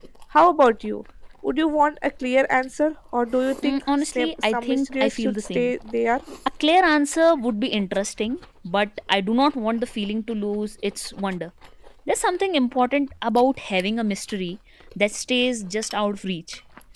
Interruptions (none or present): present